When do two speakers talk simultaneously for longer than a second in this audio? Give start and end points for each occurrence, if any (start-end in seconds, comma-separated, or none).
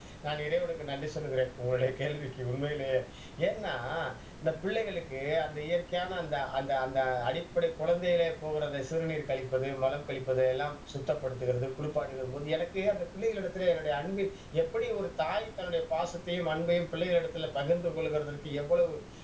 none